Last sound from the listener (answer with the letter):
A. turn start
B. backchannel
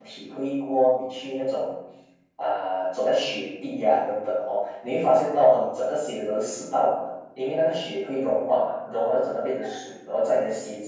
B